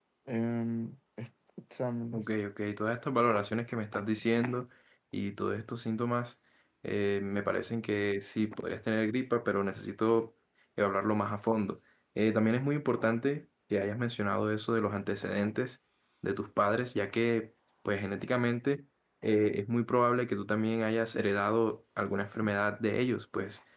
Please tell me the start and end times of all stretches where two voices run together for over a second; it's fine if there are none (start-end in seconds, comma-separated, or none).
none